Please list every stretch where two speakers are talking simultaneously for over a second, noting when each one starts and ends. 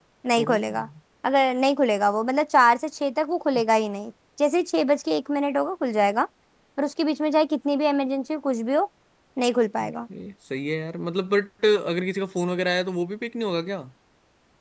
none

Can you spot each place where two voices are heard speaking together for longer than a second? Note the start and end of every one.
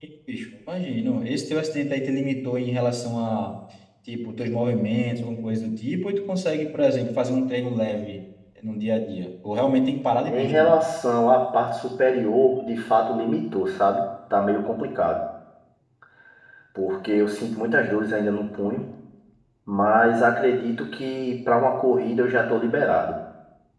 none

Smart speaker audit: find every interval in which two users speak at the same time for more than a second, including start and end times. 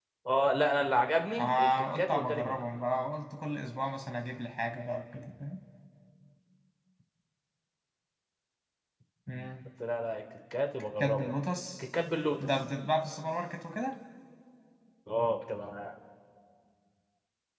1.4-2.6

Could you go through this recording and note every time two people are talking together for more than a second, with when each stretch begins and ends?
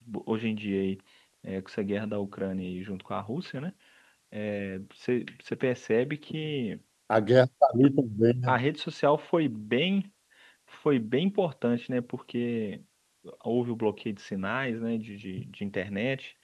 none

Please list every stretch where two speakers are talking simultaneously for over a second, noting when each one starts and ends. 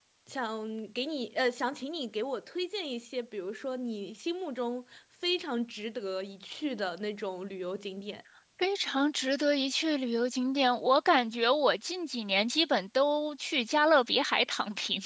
none

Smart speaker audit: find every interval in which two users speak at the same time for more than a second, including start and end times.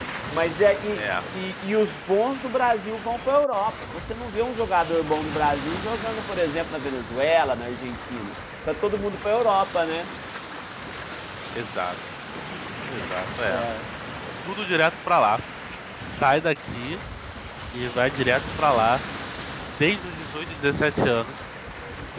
none

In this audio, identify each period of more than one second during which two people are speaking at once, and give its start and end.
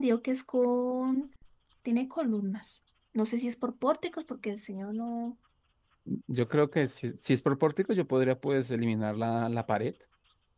none

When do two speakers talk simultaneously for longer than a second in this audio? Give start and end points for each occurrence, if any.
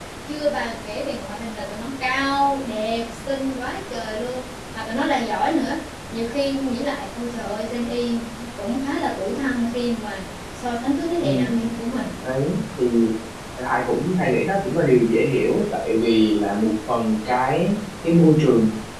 none

